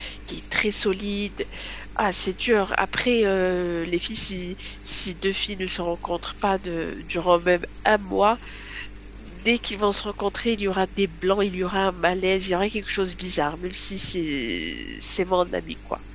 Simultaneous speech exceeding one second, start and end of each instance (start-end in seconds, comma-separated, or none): none